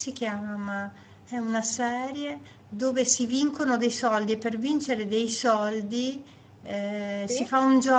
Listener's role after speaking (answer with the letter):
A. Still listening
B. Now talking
A